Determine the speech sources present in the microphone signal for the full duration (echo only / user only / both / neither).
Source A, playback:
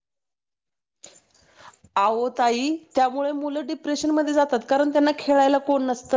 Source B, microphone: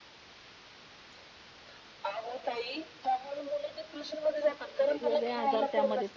both